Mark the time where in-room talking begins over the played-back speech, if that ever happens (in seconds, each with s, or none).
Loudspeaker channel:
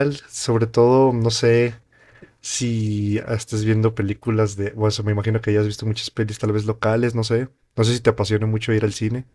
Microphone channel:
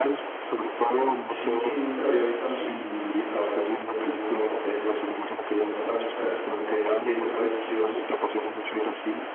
1.2 s